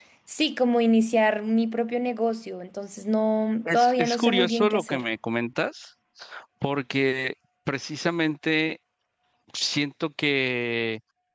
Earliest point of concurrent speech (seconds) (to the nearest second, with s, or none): 4 s